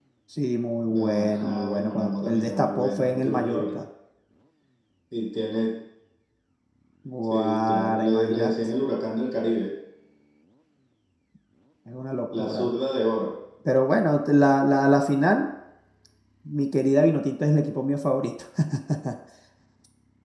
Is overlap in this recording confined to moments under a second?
No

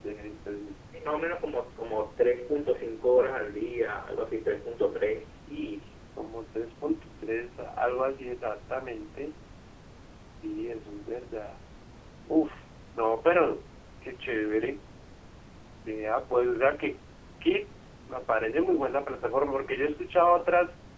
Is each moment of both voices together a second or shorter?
Yes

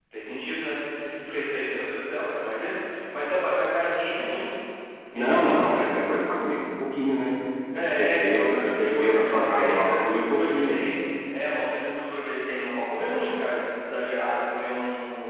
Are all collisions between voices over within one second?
No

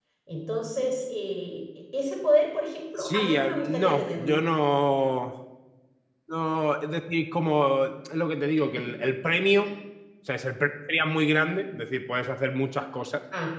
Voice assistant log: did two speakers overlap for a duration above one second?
Yes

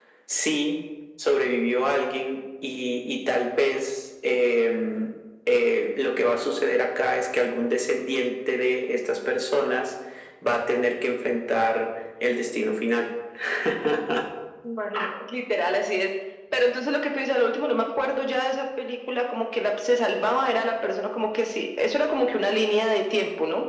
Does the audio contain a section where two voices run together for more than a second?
No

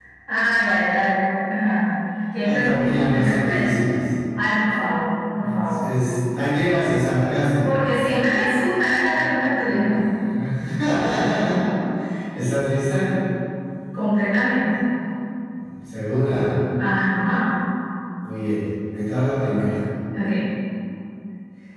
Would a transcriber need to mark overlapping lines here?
Yes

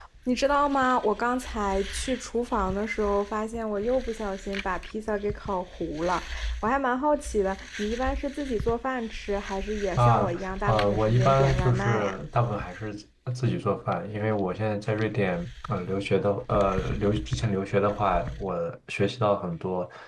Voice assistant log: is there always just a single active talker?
No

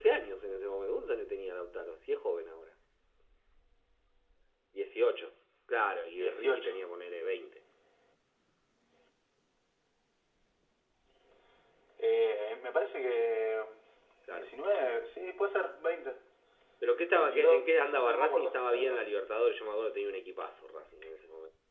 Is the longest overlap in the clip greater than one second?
Yes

